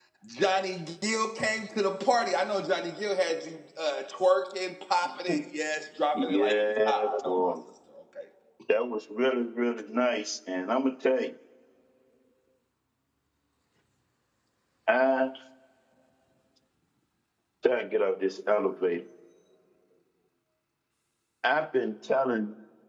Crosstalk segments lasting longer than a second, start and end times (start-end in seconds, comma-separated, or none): 6.1-7.5